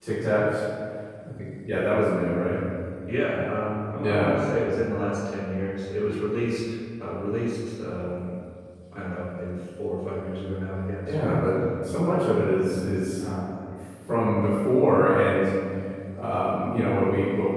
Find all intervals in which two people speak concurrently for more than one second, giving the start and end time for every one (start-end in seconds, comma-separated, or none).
none